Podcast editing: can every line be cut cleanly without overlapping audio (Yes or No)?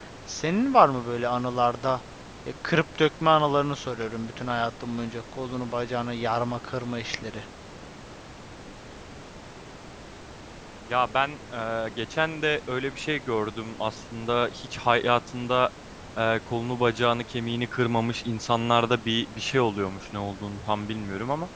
Yes